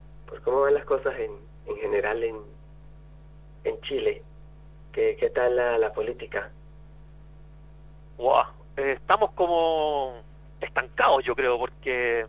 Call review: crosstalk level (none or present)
none